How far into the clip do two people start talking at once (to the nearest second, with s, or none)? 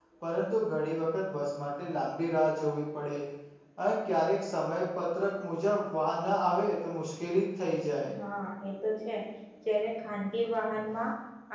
none